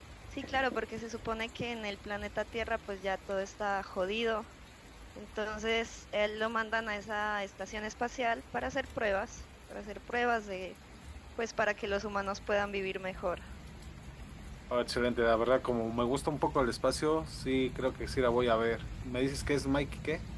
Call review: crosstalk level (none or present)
none